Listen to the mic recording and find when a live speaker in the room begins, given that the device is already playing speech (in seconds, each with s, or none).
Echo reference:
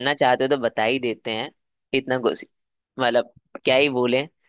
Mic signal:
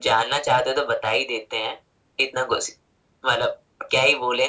none